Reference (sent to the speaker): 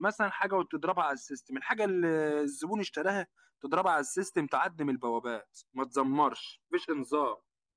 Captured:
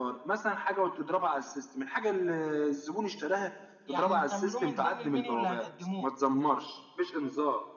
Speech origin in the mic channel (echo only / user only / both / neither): both